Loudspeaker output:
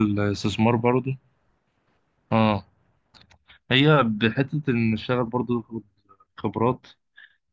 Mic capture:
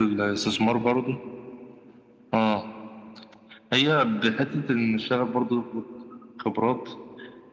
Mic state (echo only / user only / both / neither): echo only